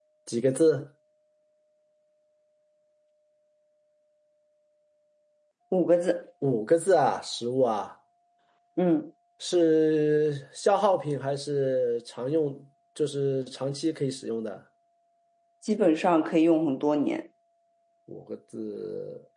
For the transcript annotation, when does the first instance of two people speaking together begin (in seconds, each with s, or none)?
none